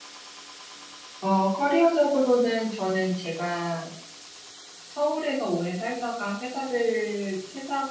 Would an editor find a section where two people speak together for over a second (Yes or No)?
No